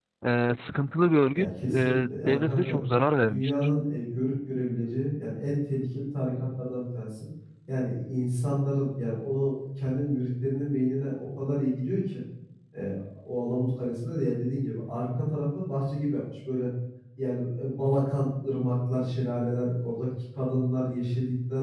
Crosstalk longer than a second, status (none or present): present